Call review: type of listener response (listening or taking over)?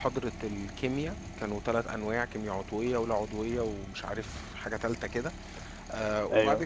listening